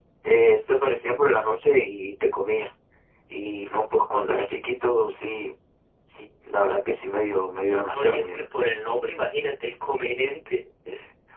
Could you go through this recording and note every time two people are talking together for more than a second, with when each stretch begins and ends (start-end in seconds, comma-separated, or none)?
none